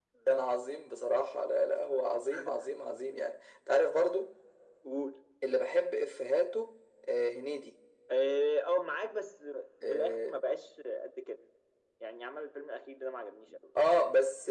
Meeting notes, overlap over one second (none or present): none